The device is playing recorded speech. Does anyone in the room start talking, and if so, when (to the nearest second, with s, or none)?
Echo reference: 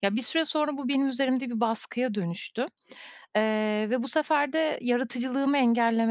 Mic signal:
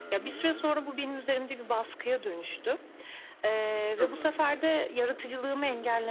4 s